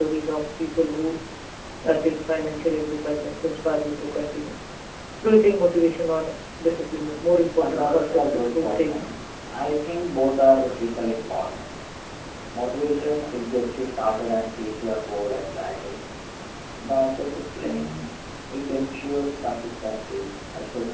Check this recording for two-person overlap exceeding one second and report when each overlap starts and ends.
7.6-9.2

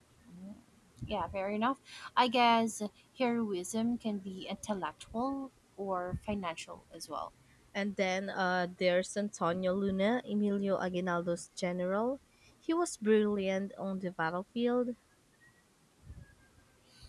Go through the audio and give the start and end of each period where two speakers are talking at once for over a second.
none

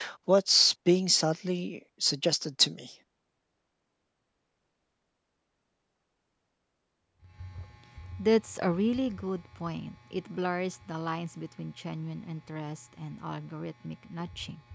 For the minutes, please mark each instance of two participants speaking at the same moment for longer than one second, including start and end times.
none

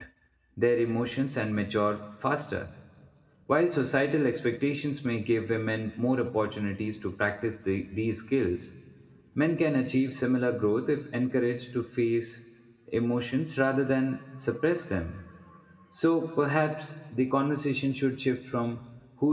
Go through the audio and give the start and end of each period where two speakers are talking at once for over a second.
none

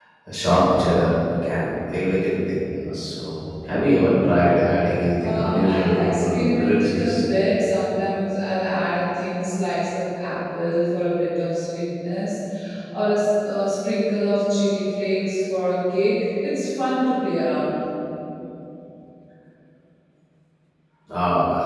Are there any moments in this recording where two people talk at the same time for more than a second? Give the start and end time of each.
5.2-7.2

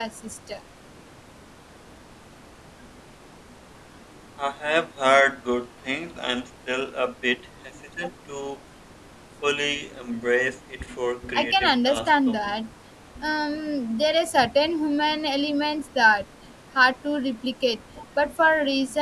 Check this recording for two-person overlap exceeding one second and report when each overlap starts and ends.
11.3-12.5

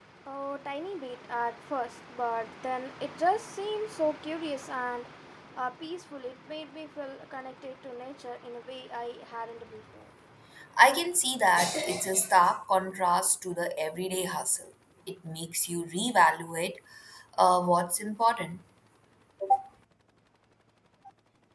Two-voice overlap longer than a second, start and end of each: none

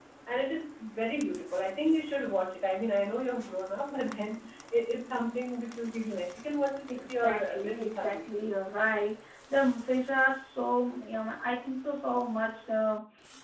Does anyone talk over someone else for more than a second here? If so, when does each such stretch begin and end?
6.9-8.2

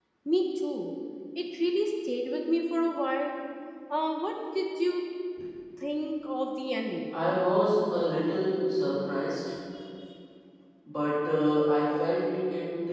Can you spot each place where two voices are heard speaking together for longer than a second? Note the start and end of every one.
none

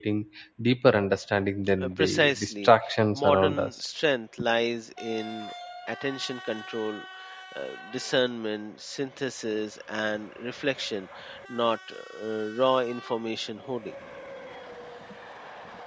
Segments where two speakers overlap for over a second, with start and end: 1.8-3.7

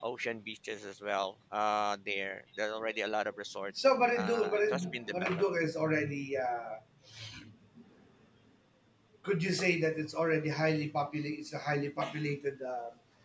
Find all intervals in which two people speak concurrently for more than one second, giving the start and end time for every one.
4.2-5.4

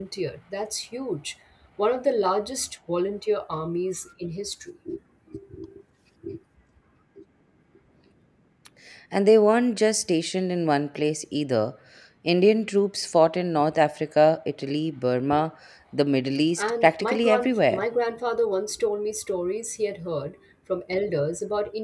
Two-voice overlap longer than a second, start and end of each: 16.6-17.8

